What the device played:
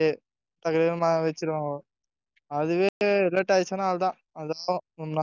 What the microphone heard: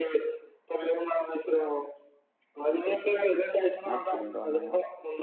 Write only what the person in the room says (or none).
நாத்து புடுங்கிட்டு வர்ணுமா